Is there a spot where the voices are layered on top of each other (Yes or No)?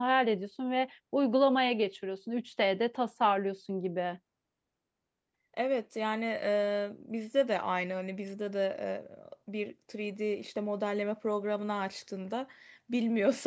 No